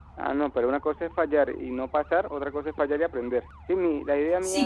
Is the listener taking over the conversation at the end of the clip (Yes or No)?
Yes